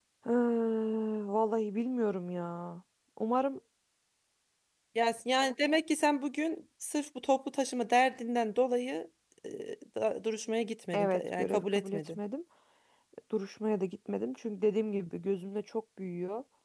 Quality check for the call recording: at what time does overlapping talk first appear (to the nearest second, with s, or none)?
11 s